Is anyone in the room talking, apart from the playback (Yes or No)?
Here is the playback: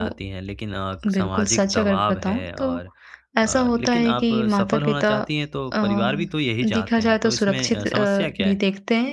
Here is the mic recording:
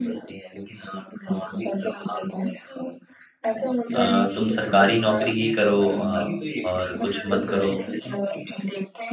Yes